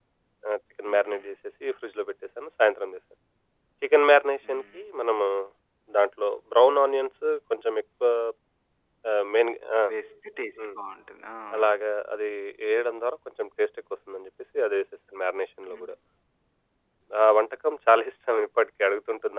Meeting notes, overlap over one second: none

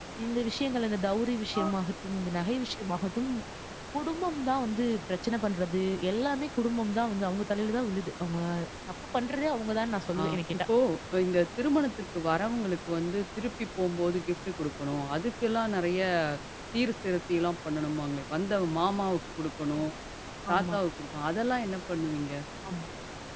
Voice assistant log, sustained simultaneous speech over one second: none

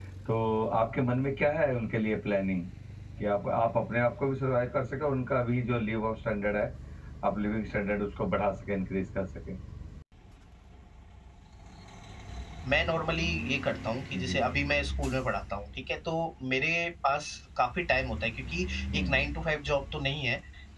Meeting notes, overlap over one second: none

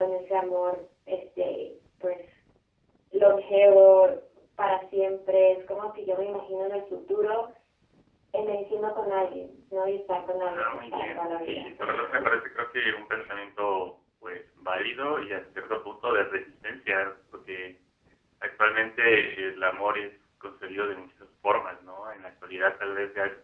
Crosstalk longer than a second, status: present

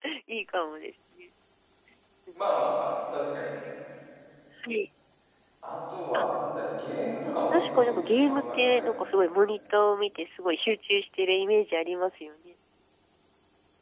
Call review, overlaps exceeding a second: present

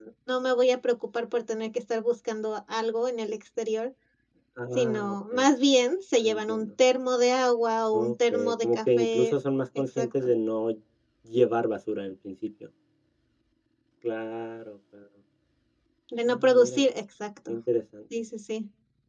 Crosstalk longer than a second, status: present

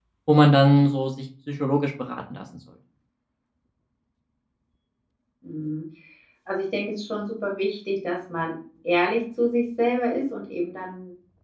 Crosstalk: none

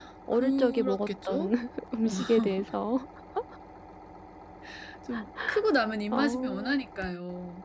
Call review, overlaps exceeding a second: present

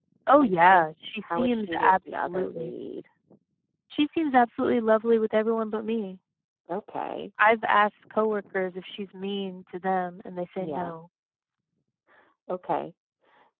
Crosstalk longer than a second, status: present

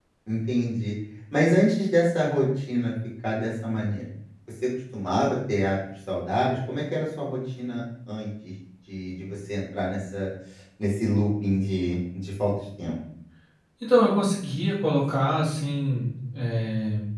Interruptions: none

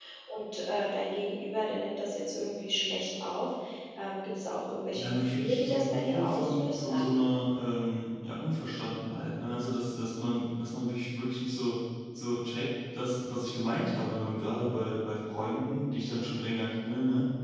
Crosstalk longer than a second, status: present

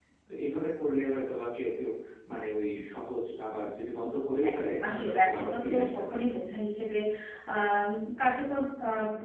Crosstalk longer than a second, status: present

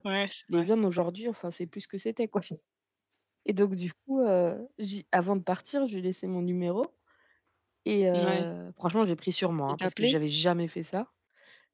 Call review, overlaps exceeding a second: none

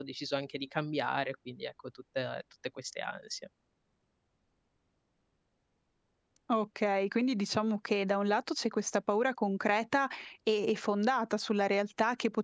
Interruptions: none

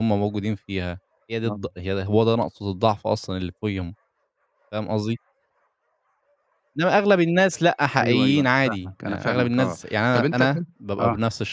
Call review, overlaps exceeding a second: present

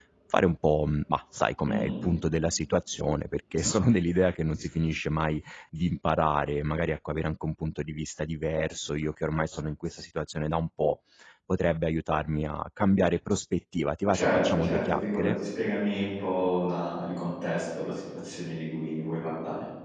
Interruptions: present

